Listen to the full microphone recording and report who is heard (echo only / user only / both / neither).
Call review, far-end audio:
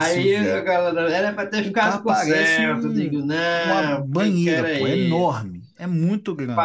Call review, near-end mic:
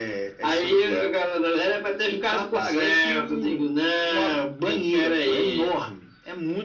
echo only